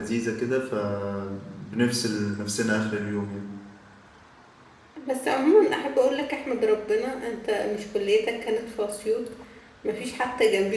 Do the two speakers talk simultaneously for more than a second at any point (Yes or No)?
No